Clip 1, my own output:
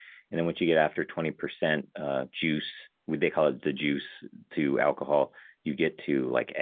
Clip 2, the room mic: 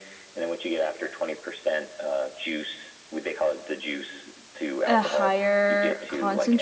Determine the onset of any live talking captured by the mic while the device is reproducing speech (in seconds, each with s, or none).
4.9 s